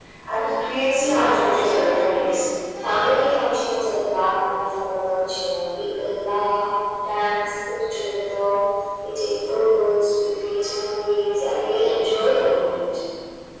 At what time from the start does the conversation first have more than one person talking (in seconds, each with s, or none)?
0.9 s